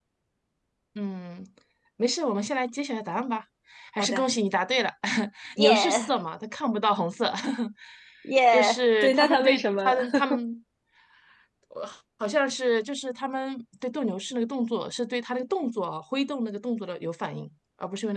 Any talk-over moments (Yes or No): Yes